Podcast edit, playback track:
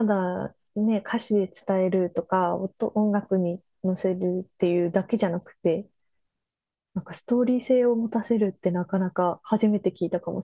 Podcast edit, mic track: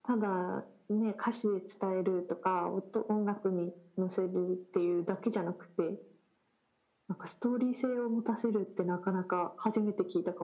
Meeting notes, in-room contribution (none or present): none